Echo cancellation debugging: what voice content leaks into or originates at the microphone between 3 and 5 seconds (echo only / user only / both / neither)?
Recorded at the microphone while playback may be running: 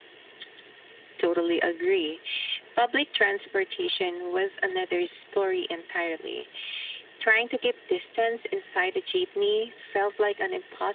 echo only